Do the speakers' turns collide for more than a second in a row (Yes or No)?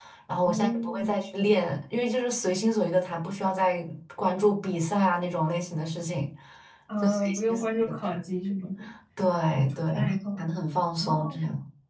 Yes